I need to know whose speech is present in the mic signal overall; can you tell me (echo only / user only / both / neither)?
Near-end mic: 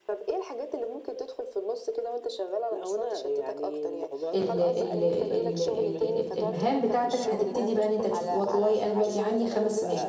both